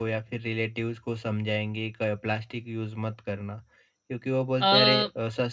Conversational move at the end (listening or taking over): listening